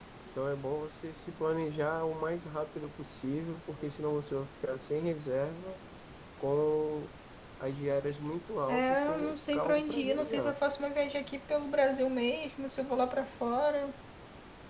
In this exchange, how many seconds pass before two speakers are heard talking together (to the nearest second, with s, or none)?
9 s